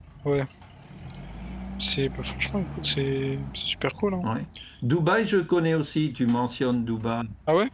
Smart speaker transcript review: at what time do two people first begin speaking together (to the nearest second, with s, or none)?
none